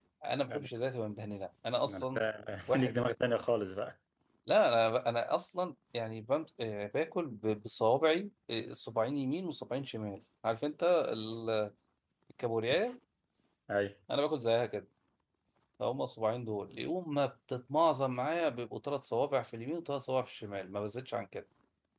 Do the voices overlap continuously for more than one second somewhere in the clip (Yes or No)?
No